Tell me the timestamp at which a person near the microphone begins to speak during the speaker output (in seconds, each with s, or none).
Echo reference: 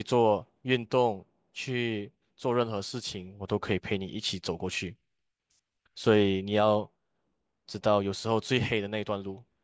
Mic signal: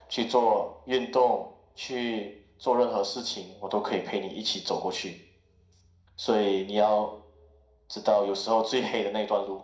none